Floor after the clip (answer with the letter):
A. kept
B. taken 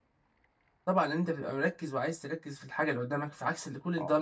B